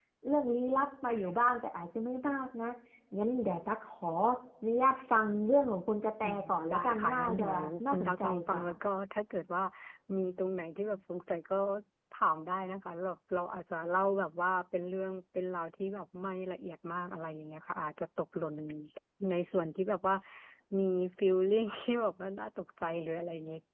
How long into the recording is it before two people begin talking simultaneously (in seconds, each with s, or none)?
6.2 s